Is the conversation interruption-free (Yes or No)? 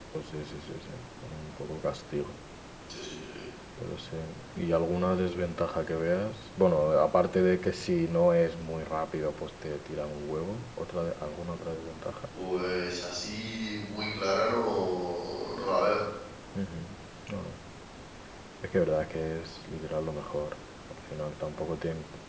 Yes